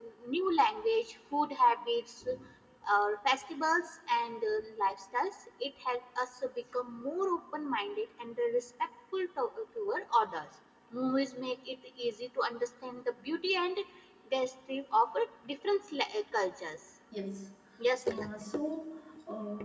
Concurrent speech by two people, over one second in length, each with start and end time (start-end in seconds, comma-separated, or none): none